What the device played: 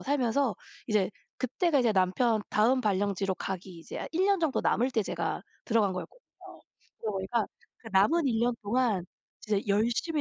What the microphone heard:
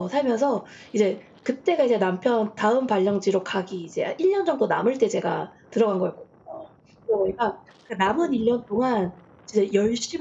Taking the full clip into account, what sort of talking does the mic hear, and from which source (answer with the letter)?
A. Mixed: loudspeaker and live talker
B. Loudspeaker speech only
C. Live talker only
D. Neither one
B